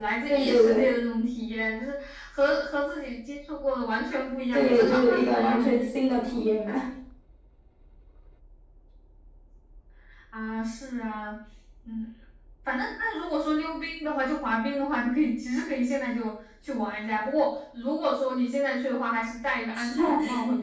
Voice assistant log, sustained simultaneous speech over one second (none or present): present